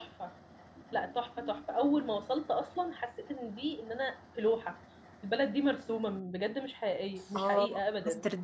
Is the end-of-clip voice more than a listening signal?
Yes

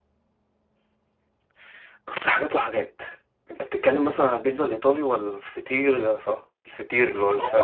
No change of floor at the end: No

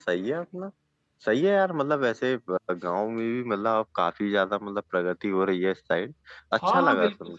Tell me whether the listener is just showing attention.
No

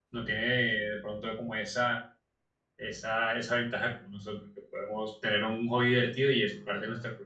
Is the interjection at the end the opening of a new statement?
Yes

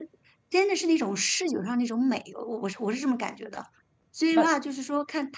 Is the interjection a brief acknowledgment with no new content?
Yes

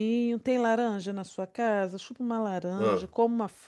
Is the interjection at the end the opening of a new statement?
No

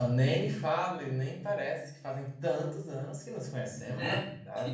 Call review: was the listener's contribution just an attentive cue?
No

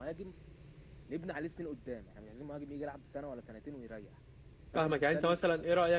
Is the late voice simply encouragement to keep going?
No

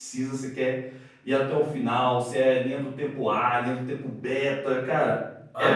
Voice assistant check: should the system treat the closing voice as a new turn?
Yes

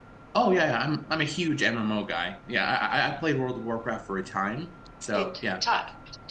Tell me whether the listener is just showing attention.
No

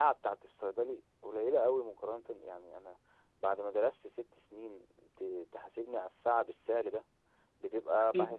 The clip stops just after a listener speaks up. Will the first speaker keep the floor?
Yes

